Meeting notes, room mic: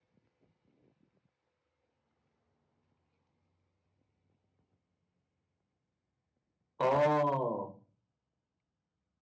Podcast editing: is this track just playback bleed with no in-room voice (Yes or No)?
No